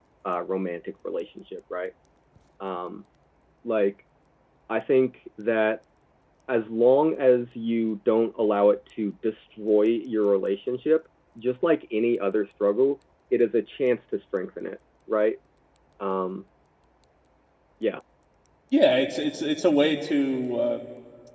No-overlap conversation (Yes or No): Yes